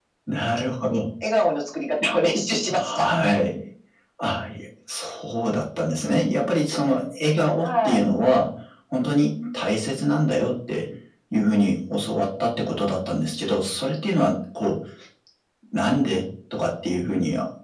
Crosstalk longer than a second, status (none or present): none